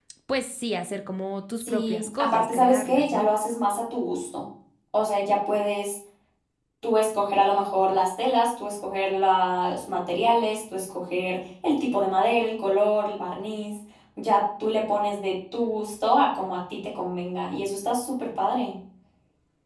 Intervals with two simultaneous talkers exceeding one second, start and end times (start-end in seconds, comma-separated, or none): 1.6-3.3